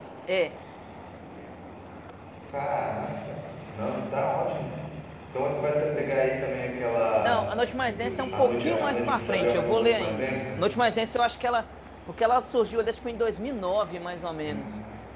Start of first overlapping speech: 7.2 s

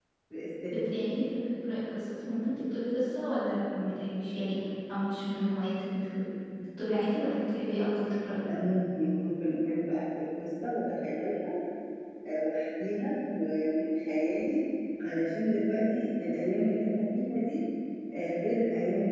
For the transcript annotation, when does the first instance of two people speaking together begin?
none

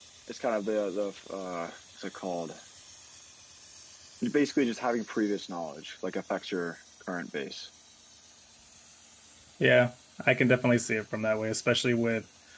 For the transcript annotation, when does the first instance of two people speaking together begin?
none

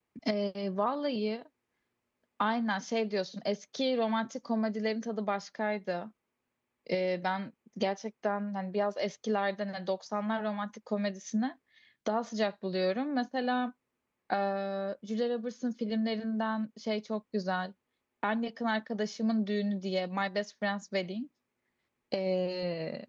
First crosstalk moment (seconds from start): none

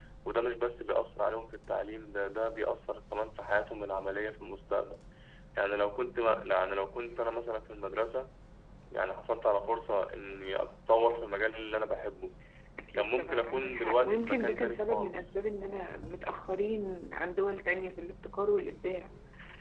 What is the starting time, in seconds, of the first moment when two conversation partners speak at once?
12.9 s

